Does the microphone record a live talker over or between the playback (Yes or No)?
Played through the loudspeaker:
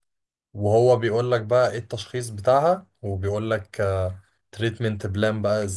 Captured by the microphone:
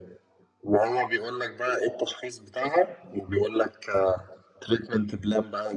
No